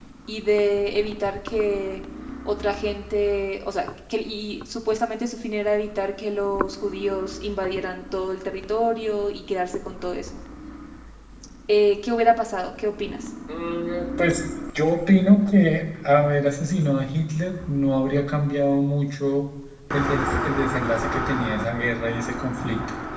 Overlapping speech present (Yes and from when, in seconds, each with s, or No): No